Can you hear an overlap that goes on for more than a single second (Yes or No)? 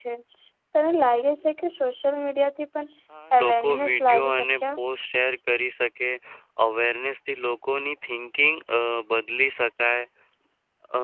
Yes